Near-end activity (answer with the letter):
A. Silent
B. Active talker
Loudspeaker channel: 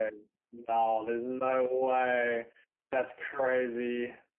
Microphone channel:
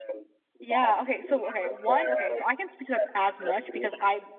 B